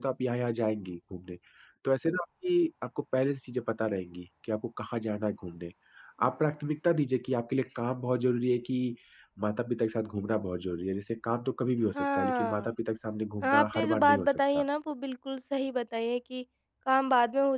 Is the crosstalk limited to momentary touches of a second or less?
No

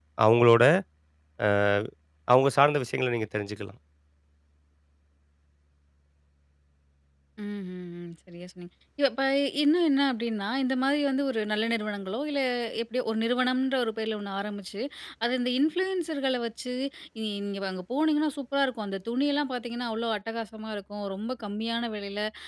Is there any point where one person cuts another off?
No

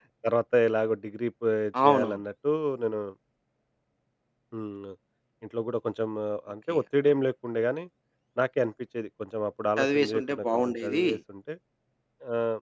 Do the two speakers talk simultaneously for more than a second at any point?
Yes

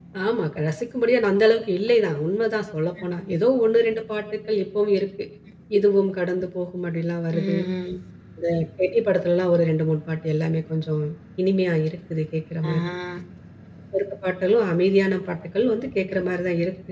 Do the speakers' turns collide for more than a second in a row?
No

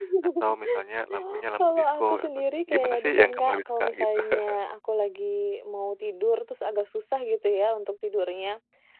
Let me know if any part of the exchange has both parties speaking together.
Yes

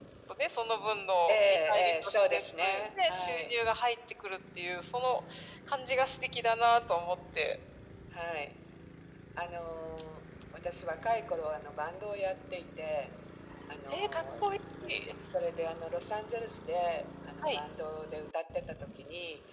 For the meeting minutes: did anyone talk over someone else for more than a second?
Yes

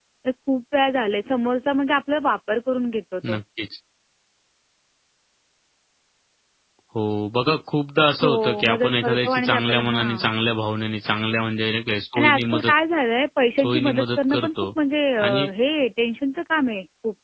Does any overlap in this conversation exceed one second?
Yes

